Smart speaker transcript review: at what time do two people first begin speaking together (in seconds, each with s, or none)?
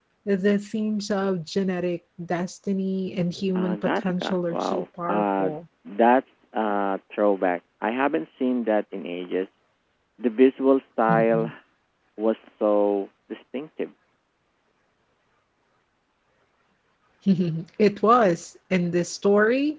3.5 s